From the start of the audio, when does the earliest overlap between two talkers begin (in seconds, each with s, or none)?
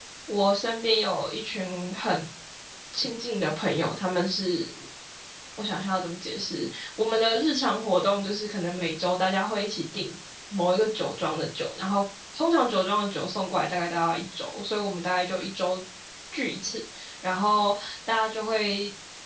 none